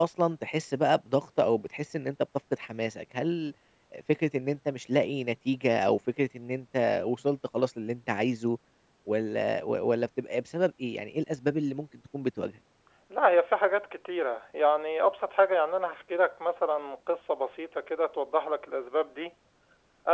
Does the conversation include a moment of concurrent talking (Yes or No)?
No